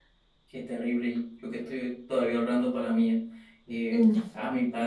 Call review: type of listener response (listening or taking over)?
listening